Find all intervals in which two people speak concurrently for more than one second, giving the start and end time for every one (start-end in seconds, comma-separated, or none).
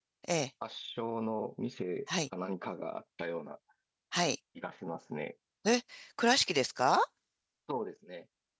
none